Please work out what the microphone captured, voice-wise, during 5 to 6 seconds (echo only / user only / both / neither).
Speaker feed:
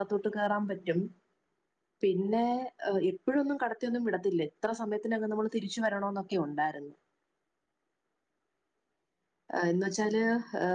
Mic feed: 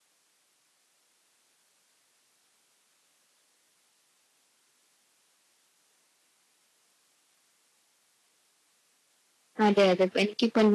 neither